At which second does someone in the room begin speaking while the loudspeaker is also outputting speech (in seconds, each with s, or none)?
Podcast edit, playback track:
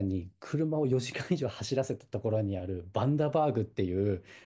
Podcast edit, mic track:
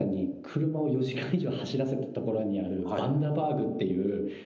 2.8 s